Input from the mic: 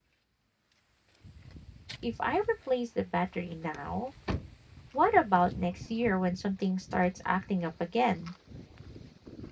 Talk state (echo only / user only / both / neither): user only